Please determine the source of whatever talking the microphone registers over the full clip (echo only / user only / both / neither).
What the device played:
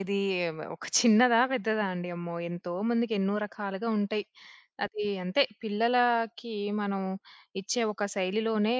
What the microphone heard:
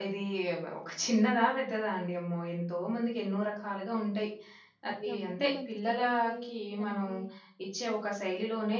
both